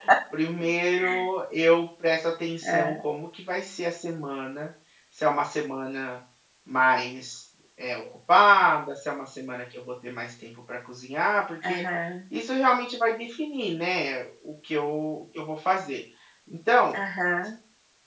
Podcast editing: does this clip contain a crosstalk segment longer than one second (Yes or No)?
No